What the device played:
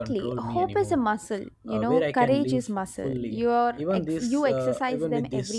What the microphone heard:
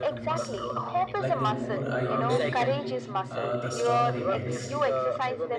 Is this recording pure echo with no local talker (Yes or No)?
No